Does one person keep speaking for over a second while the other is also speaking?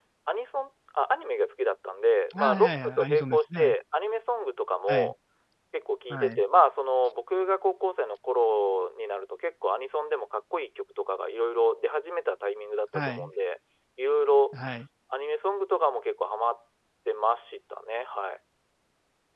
Yes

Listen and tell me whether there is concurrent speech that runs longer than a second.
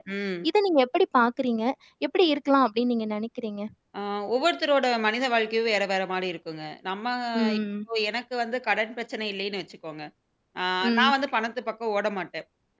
No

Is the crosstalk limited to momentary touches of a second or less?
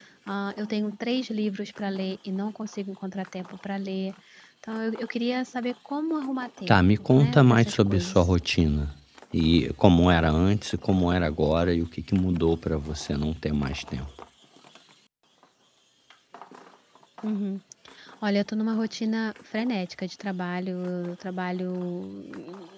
No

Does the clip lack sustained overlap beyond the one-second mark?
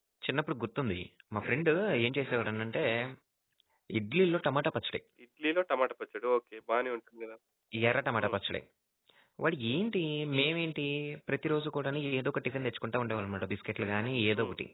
Yes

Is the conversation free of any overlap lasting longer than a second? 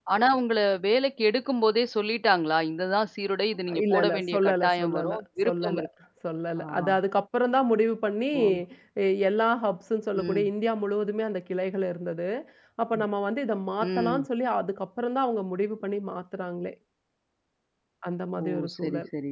No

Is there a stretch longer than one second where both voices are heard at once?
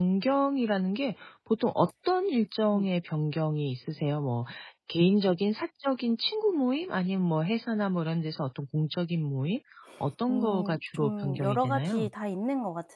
Yes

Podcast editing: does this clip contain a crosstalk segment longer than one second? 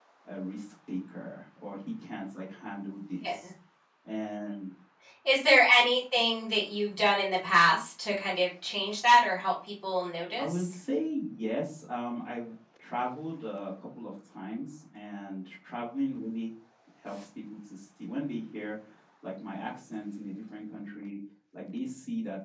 No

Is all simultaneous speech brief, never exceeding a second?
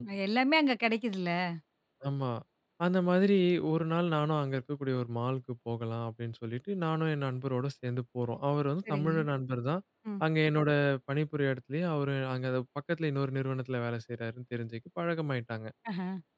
Yes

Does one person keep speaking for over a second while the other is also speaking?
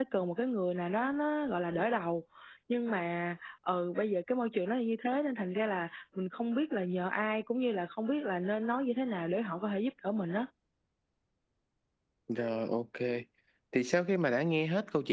No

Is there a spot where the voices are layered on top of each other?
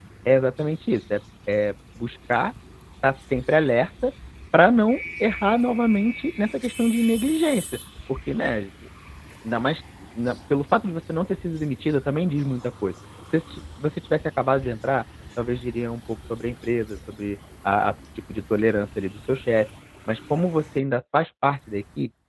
No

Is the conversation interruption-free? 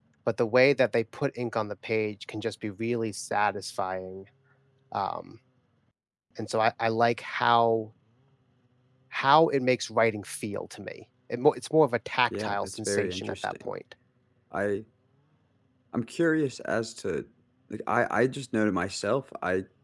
No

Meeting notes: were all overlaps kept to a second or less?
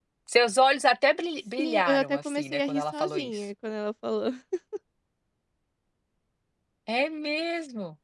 No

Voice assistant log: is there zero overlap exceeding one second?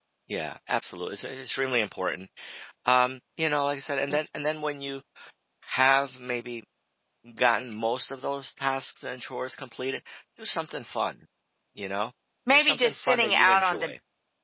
No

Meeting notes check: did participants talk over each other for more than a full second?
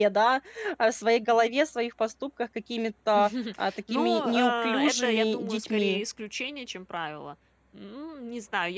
Yes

